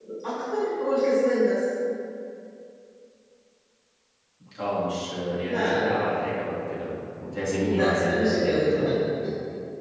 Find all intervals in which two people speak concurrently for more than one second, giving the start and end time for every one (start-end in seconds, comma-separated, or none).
7.5-8.9